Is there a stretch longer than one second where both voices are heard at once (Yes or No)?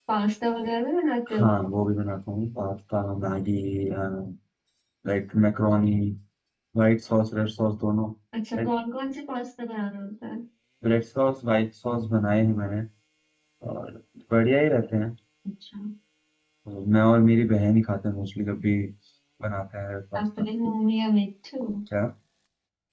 No